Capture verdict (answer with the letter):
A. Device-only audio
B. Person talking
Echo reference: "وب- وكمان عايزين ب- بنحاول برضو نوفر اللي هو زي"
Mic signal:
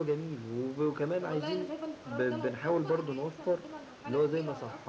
B